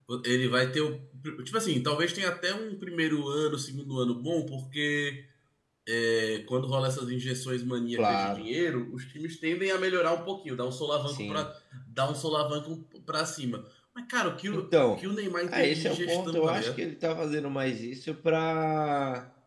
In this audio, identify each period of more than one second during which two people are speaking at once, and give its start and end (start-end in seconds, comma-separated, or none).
15.5-16.8